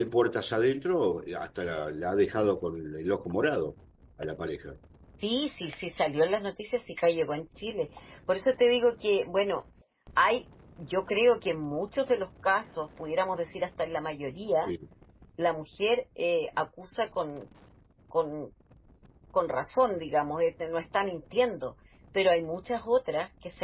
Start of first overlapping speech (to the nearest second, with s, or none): none